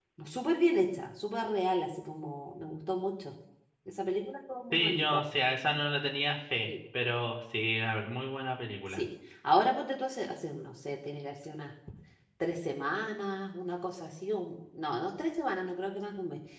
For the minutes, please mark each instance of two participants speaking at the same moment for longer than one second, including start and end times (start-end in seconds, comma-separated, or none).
none